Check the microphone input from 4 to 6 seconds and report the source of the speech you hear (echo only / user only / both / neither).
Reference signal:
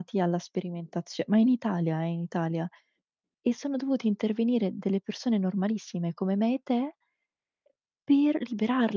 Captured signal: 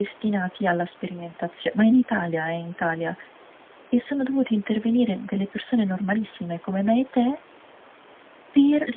echo only